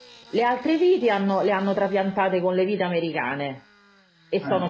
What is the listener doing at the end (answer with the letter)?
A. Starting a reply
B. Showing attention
B